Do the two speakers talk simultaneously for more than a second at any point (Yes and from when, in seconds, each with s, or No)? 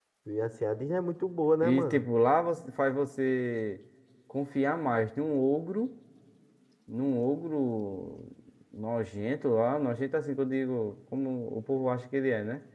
No